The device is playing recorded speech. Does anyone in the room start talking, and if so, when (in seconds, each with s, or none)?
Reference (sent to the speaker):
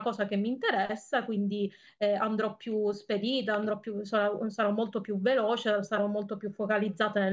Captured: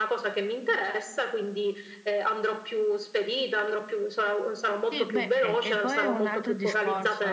4.9 s